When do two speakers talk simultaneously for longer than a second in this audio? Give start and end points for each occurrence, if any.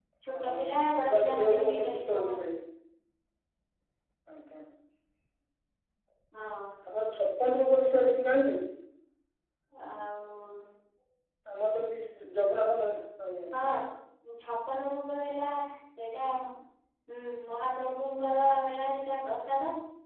1.1-2.4

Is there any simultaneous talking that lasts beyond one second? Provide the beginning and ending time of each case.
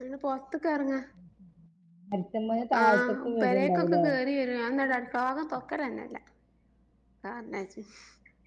2.8-4.0

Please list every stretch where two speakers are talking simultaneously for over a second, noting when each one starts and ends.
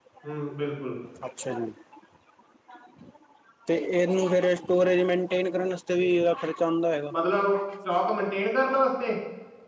none

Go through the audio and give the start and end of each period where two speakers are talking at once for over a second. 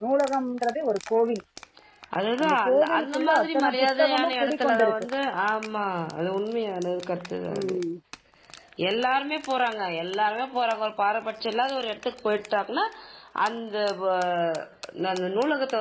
2.7-5.0

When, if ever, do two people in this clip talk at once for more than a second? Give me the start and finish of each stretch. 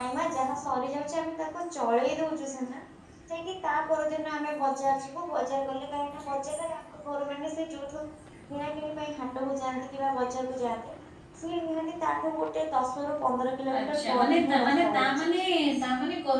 13.8-15.0

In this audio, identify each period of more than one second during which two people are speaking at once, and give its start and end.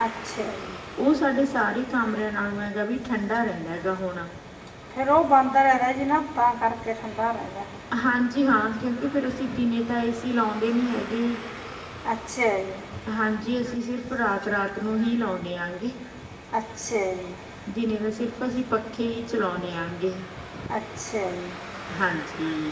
none

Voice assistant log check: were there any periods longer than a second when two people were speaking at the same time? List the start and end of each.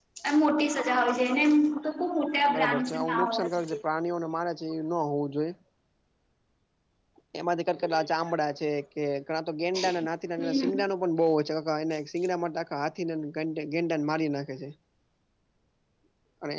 2.5-3.8

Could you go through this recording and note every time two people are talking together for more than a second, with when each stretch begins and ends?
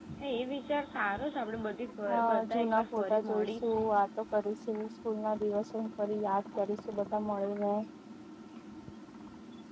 2.3-3.8

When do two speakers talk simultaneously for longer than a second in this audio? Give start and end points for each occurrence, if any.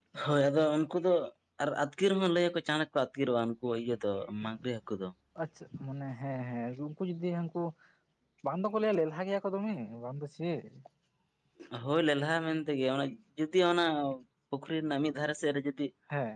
none

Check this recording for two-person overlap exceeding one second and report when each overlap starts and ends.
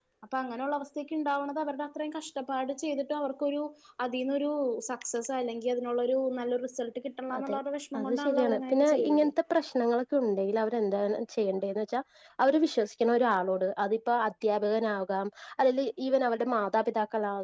8.0-9.3

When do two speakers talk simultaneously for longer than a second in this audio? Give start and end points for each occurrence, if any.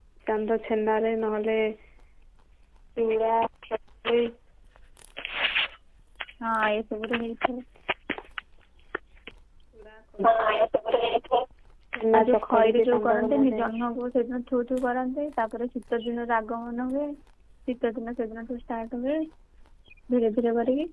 12.2-13.7

